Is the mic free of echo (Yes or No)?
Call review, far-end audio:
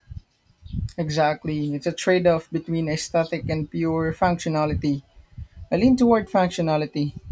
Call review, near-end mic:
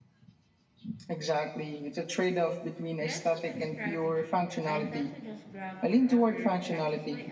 No